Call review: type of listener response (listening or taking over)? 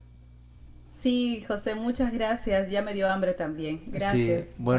taking over